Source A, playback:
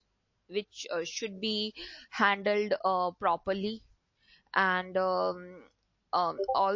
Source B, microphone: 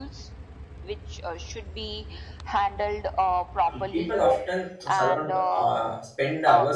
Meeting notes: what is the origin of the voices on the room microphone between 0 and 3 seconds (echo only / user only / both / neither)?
echo only